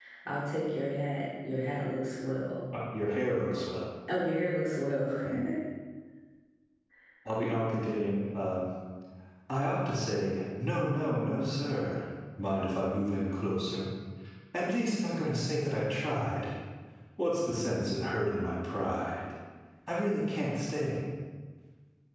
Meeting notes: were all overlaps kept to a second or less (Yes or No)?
Yes